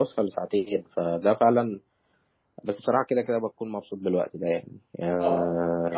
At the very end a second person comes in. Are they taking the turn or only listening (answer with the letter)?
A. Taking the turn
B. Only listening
A